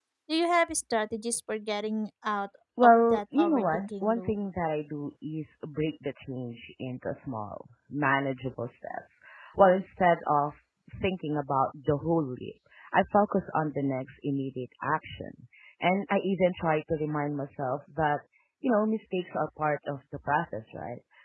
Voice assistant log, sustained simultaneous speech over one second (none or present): present